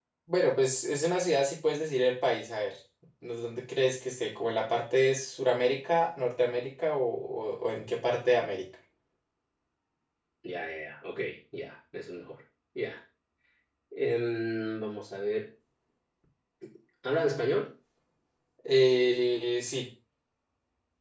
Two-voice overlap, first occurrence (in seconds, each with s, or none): none